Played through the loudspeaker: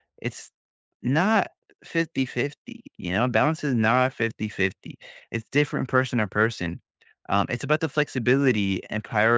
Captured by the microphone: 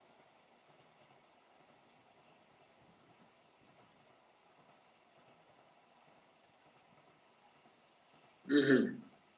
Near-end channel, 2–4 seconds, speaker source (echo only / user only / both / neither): neither